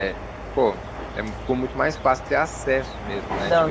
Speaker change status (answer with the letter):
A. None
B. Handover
B